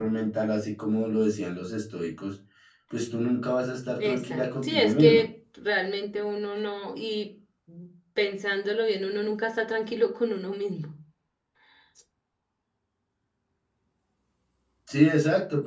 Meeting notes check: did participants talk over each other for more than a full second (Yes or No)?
Yes